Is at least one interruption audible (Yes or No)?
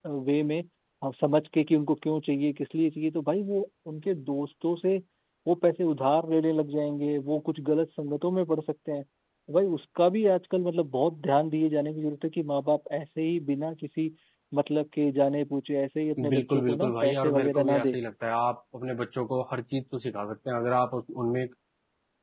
Yes